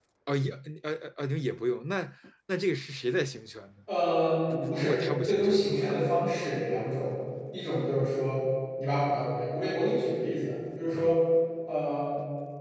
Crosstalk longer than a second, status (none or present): present